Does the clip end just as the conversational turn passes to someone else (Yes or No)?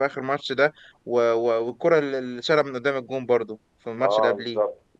Yes